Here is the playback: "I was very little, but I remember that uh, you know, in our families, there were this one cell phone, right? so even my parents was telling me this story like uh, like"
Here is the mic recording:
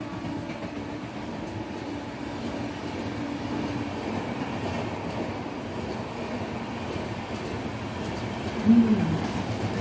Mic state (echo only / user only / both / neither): user only